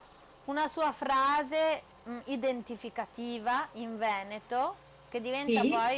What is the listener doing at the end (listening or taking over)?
listening